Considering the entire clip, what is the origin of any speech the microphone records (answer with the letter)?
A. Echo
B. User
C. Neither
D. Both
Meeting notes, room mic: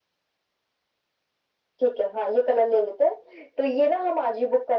A